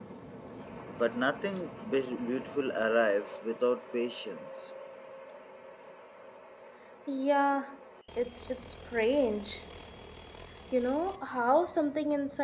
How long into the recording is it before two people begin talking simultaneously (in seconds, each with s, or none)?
none